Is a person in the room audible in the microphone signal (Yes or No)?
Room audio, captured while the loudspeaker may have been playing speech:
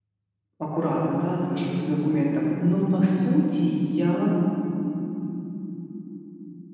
Yes